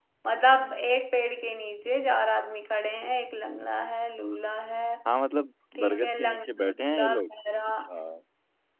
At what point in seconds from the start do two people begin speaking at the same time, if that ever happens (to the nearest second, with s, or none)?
6 s